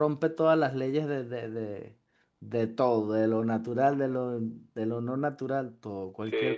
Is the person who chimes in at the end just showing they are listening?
No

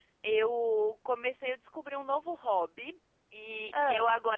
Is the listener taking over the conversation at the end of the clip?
No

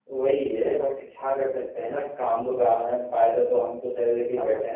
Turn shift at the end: Yes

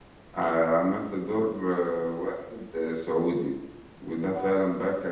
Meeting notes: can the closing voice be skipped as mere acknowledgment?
Yes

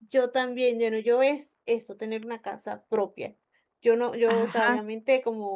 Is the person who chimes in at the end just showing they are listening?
Yes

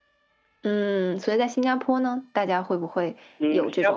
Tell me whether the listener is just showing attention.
No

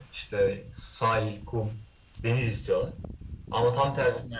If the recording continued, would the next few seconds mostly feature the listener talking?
No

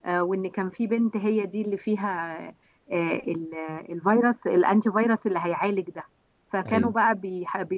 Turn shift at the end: No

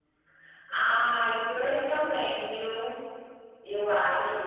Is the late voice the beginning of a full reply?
No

